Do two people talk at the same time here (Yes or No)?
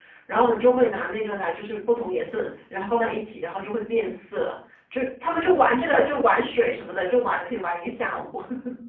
No